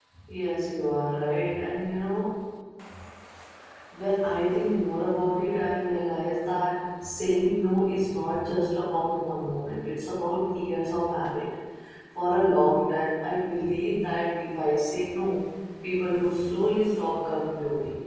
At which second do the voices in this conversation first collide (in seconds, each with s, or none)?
none